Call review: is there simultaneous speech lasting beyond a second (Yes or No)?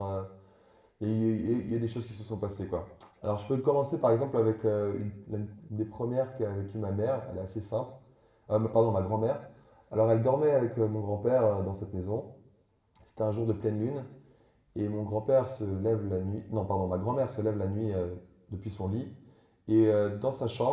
No